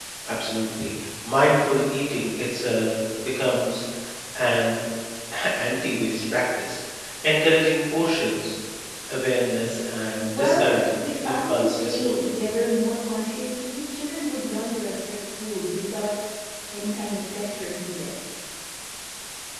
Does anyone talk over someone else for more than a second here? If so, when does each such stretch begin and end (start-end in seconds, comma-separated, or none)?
10.4-12.3